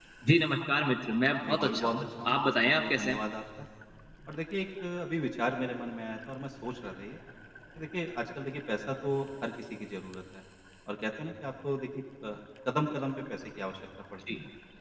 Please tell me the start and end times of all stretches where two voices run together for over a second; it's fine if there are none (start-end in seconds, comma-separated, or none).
1.4-3.2